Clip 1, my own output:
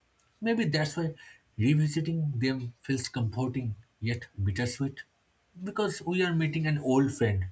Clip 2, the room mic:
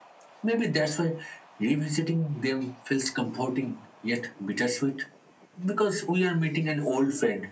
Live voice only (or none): none